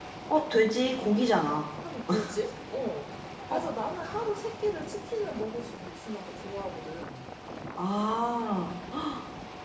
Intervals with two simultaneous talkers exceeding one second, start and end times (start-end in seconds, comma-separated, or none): none